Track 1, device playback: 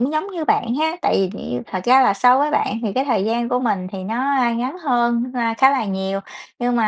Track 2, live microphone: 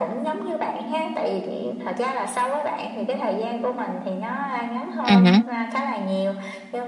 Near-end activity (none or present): present